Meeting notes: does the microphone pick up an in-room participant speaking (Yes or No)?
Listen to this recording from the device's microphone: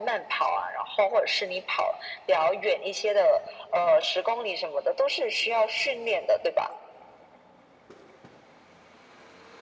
No